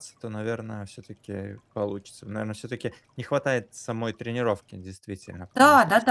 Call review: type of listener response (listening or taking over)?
taking over